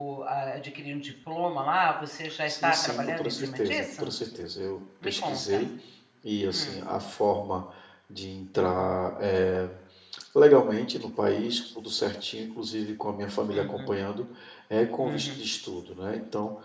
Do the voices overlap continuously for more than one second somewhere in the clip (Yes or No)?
Yes